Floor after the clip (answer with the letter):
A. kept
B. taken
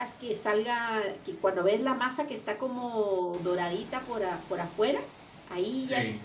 A